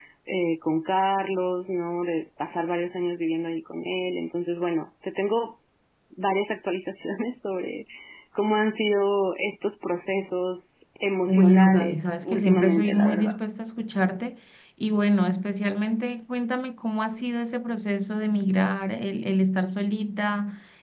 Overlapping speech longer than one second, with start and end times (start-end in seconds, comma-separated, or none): 11.2-13.4